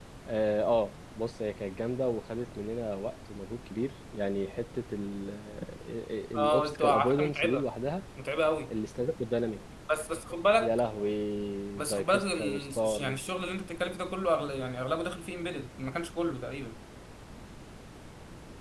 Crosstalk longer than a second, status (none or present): present